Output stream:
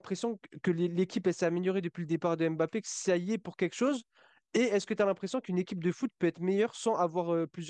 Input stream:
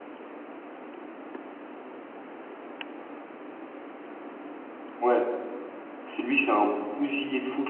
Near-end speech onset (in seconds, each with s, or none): 5.0 s